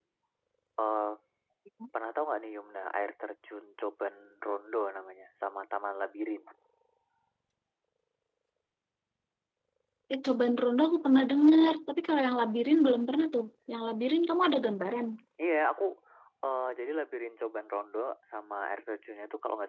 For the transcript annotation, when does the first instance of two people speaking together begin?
none

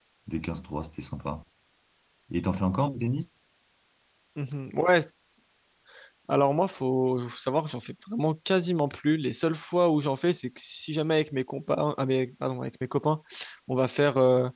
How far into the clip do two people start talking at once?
none

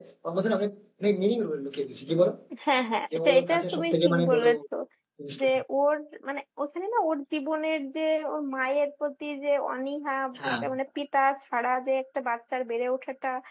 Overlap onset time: 3.2 s

